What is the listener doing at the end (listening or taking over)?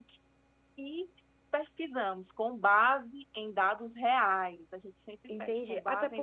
taking over